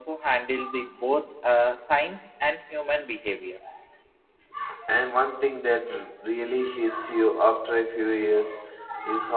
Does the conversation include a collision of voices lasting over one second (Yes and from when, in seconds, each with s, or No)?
No